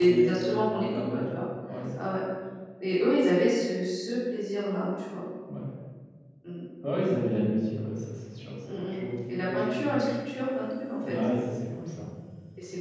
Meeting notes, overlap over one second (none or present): present